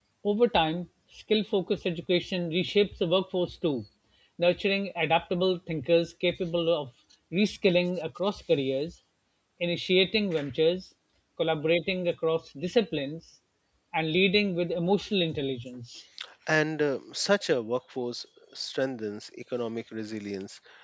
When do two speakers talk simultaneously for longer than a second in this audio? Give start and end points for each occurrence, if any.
none

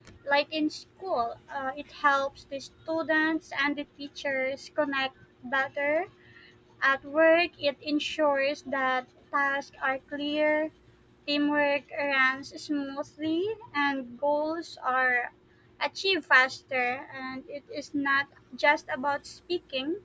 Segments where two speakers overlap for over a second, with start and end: none

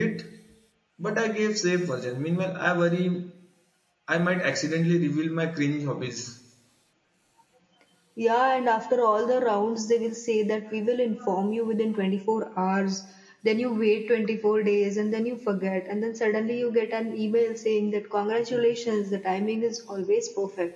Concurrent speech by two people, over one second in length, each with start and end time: none

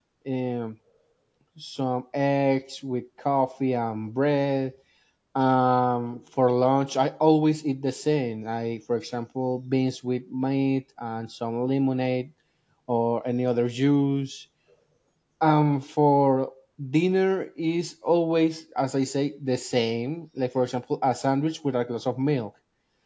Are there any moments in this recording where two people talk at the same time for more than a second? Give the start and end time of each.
none

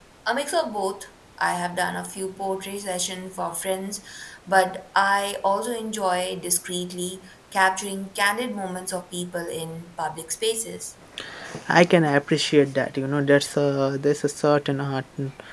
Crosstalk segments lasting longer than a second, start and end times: none

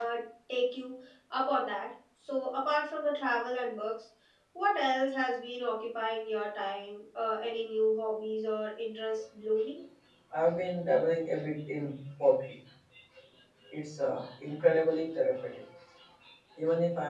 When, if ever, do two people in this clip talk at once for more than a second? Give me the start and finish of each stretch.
none

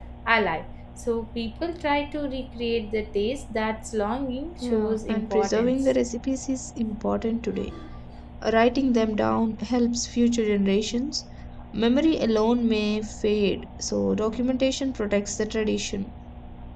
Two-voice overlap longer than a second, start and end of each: 4.6-5.9

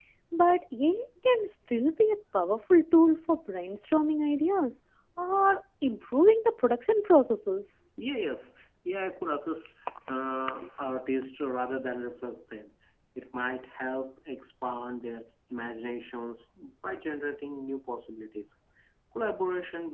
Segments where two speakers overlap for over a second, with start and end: none

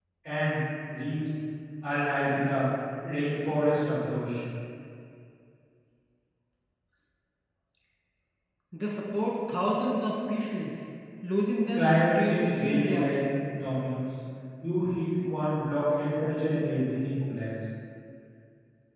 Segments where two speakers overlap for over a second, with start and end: 11.7-13.2

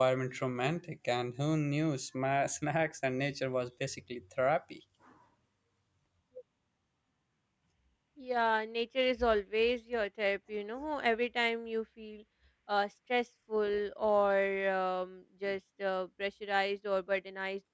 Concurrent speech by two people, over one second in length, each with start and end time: none

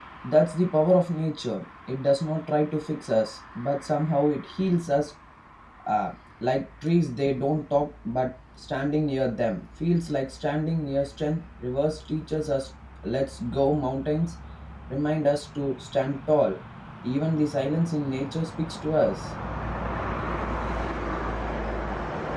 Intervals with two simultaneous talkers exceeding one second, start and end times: none

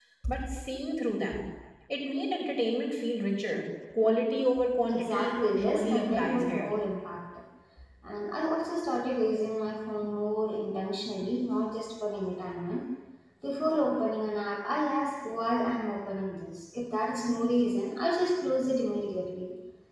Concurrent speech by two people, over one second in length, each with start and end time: 4.9-6.7

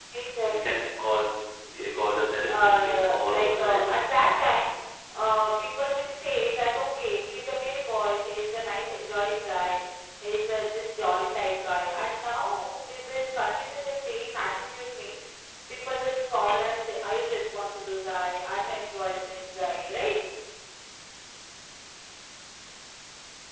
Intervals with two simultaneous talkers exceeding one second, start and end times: 2.5-3.8

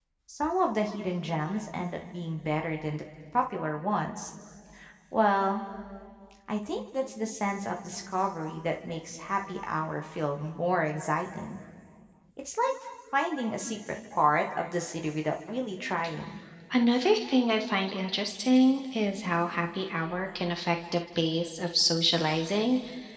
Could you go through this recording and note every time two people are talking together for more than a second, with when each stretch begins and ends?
none

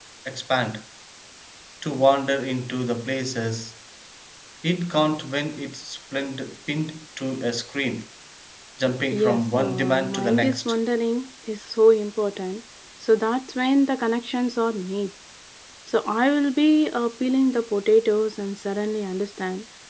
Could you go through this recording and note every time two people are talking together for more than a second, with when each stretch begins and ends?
9.1-10.8

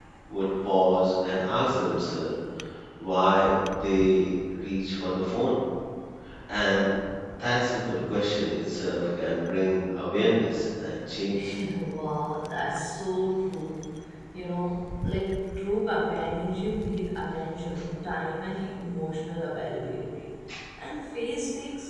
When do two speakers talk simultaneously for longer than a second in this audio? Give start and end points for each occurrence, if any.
none

